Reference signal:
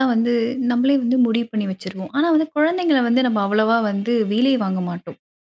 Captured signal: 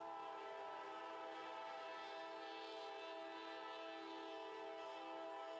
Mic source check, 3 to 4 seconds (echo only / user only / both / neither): neither